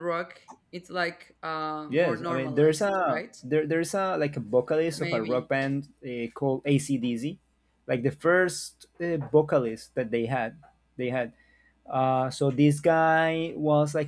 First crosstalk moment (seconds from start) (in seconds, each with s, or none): 1.9 s